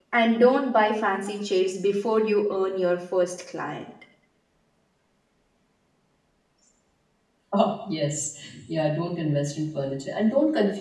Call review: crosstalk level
none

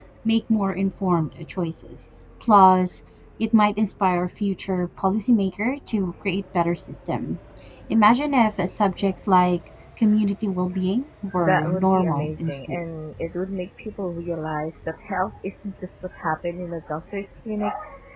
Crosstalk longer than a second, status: present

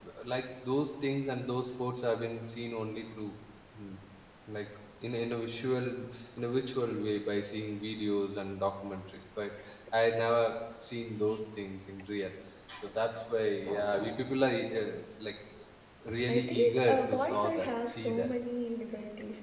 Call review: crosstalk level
present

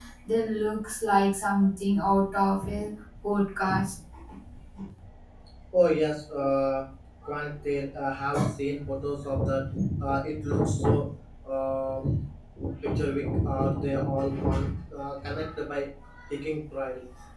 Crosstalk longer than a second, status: none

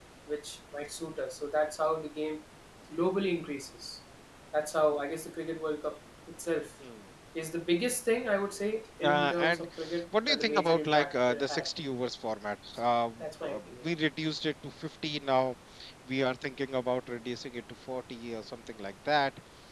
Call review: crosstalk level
present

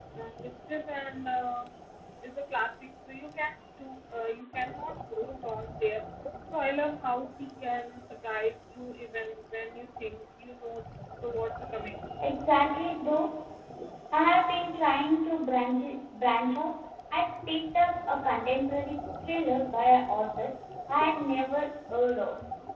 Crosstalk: none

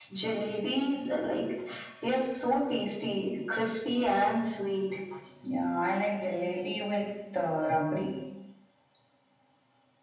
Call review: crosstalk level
none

